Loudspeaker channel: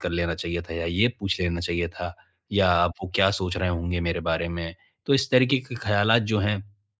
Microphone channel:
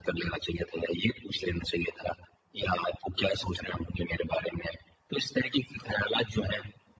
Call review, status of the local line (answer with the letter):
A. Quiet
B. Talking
A